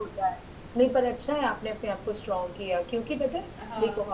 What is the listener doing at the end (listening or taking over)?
listening